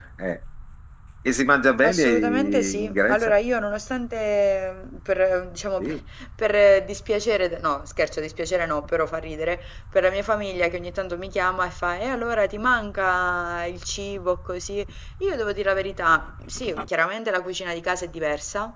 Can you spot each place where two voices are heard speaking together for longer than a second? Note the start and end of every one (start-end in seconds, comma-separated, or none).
1.8-3.3